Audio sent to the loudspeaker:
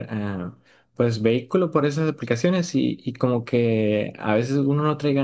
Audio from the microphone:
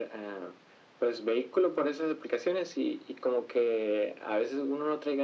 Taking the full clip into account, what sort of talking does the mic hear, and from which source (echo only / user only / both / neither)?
echo only